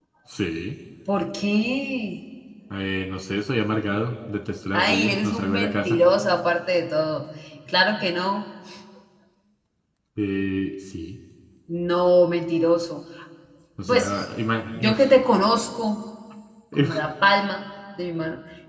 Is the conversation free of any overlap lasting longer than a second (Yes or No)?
No